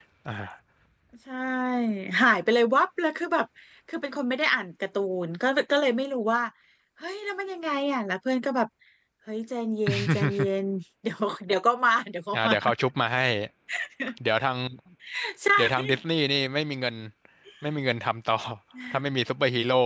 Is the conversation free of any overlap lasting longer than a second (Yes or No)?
Yes